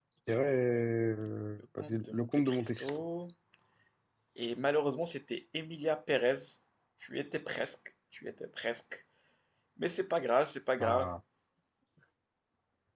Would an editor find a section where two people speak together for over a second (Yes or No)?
Yes